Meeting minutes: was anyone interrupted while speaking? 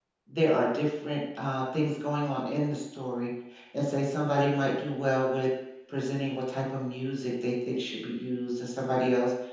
No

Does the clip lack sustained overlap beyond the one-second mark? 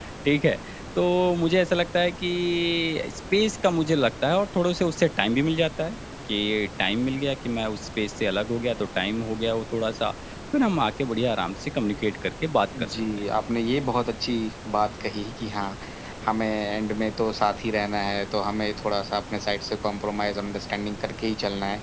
Yes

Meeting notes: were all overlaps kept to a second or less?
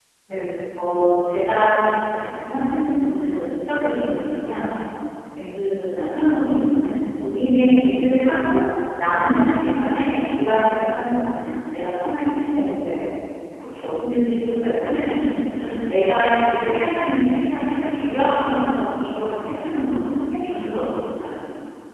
Yes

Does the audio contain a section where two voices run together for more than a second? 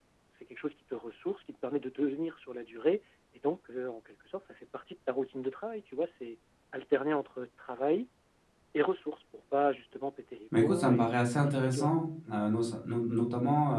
Yes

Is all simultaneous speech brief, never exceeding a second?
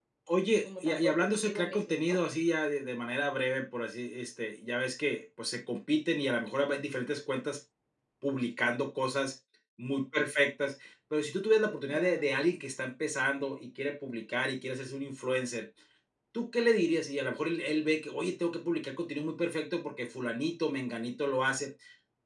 No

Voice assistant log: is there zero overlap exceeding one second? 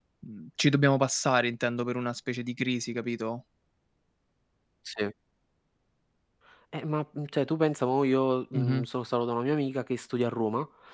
Yes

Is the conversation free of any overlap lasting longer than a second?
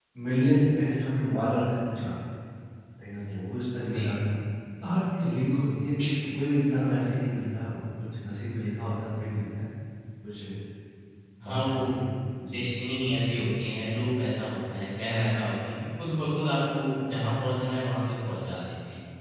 Yes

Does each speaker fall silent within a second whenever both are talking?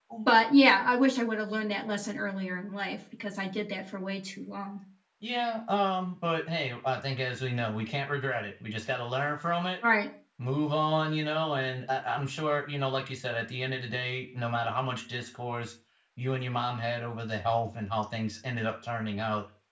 Yes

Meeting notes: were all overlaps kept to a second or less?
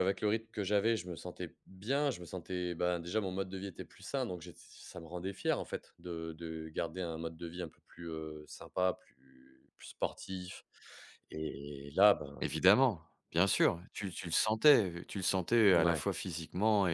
Yes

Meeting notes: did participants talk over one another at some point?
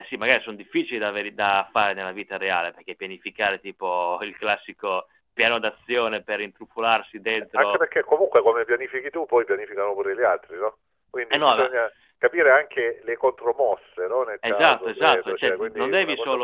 Yes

